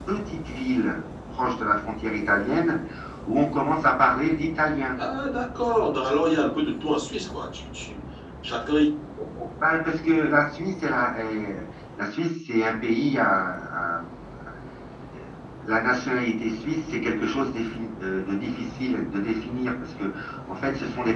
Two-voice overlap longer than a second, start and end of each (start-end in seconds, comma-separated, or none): none